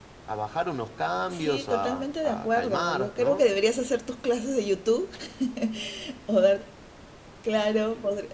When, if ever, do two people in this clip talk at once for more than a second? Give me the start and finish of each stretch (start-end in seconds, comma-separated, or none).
1.3-3.4